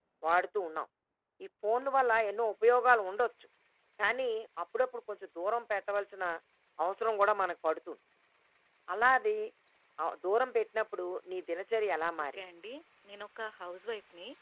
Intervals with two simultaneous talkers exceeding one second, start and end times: none

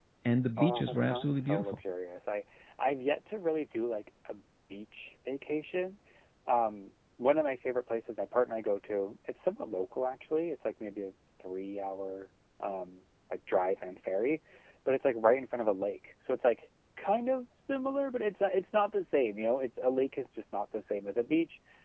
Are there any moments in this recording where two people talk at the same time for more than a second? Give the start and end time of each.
0.6-1.8

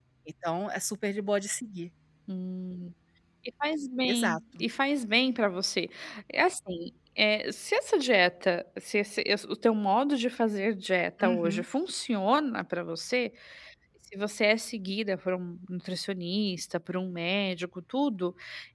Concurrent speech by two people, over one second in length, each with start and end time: none

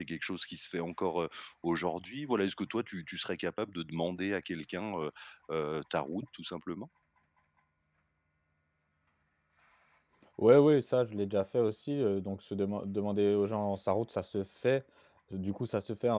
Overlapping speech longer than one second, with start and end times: none

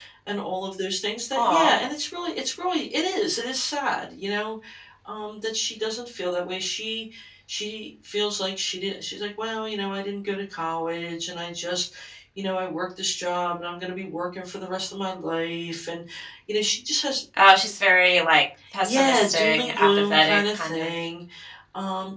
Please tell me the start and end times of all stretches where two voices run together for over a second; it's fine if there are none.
18.8-20.9

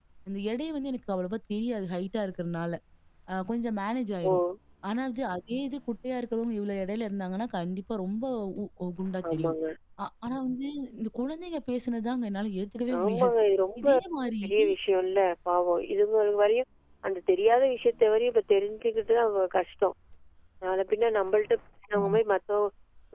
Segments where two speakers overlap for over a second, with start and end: none

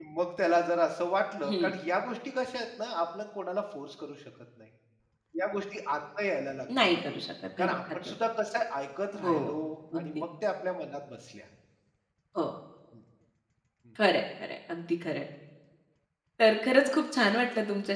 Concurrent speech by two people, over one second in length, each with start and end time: none

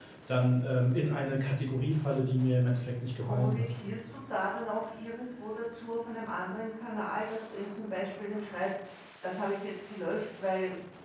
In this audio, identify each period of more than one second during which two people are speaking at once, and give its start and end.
none

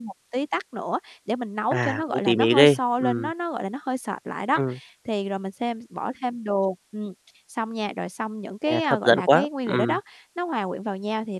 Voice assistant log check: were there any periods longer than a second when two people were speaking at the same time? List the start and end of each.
1.7-3.3, 8.7-10.0

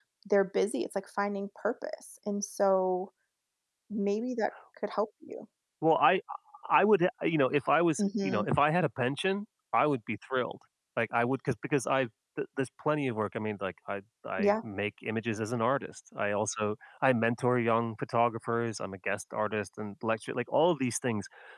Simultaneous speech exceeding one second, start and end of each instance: none

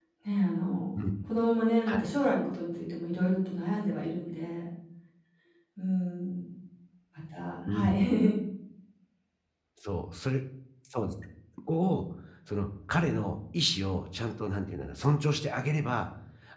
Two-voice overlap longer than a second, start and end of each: none

